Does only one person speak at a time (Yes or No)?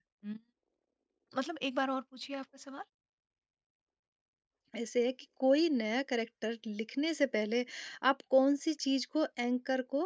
Yes